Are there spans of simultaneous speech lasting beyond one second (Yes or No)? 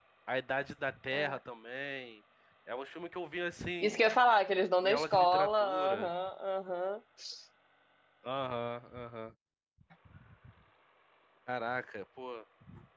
Yes